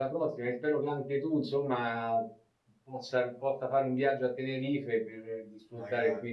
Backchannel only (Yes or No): Yes